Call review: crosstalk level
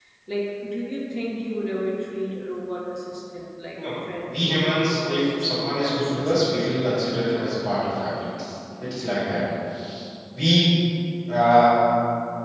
present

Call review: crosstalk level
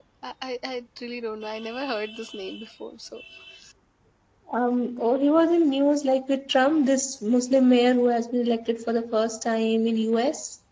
none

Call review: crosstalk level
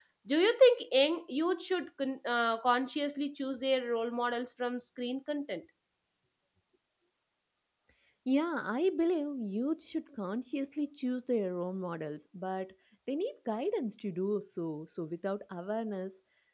none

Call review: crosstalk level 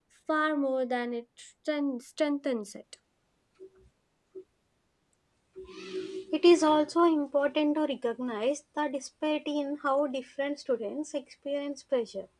none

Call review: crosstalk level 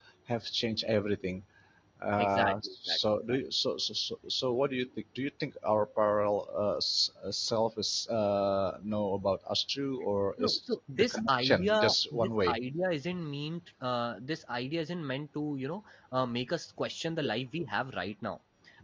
present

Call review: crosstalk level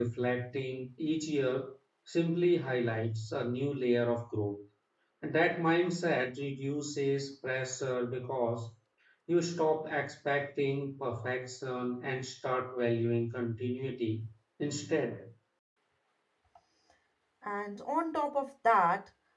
none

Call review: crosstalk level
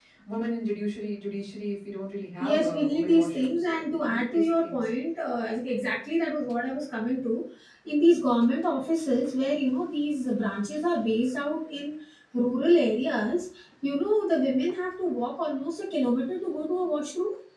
present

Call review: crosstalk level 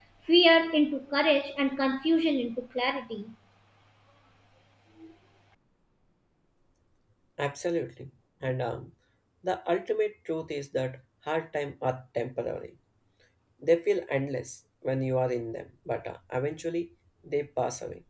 none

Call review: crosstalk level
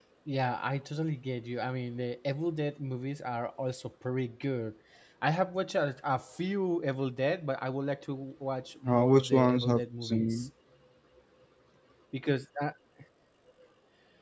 present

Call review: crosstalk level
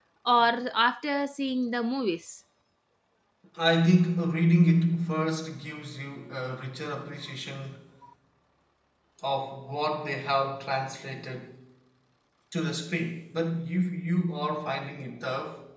none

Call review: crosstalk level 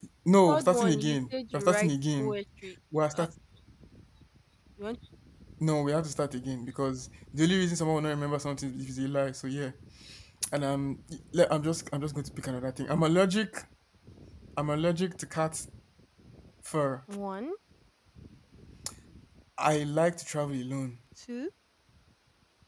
present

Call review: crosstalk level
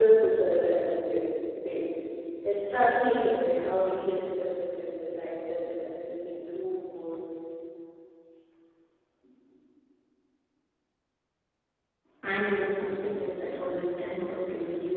none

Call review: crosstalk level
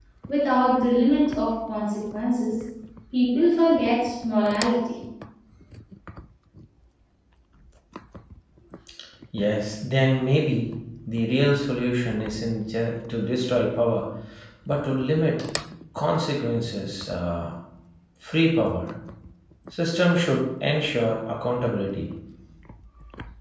none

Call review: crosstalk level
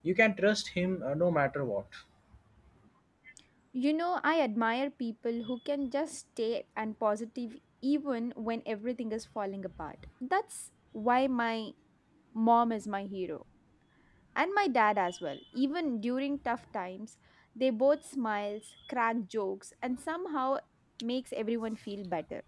none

